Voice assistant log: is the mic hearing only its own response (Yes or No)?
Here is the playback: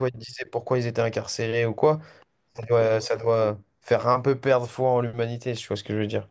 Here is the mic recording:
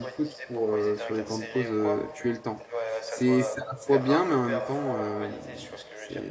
No